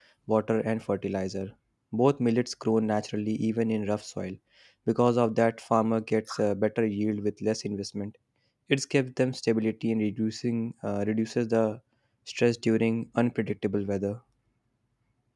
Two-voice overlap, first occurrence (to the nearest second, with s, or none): none